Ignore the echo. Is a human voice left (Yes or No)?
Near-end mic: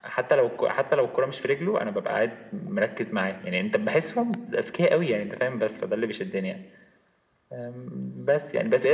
No